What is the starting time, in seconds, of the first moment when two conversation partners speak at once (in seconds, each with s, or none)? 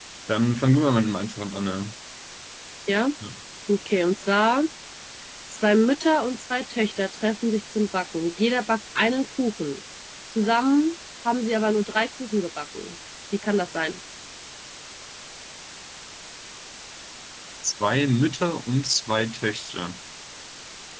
none